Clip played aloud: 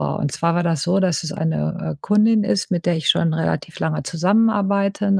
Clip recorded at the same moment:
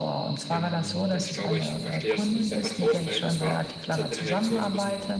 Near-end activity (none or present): present